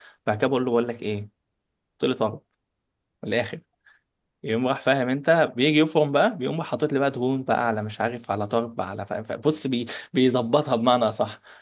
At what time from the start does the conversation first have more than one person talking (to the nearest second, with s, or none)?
none